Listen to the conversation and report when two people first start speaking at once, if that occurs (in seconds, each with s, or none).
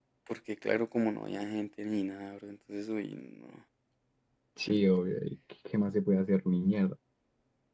none